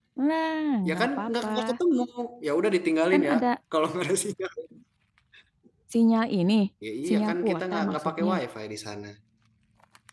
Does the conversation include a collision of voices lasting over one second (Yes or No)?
Yes